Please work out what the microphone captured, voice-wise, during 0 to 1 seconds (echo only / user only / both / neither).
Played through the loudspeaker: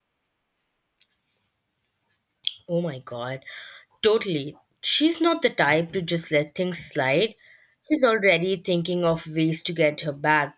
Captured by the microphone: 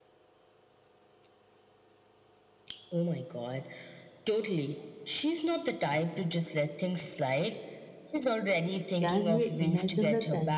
neither